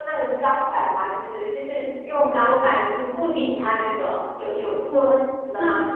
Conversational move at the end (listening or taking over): taking over